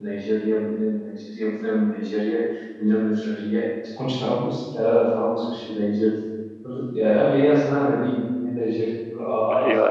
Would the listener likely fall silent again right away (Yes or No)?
Yes